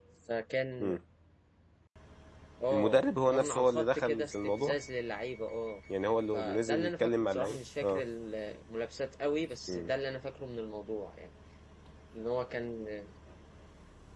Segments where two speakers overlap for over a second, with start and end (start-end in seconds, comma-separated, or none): 2.7-4.8, 6.3-8.0